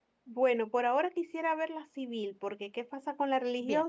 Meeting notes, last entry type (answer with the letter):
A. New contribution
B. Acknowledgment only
B